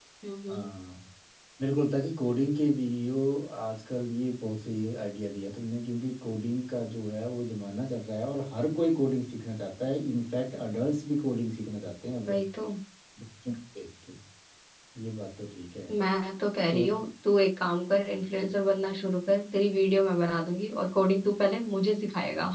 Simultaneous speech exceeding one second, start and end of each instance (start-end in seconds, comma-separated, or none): none